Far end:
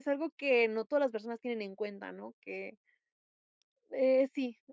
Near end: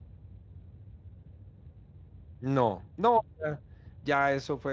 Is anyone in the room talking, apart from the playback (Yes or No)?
Yes